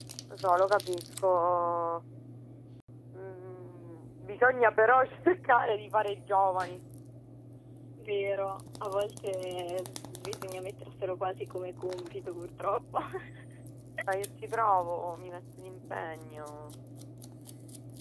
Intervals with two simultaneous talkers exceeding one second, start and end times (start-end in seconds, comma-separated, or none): none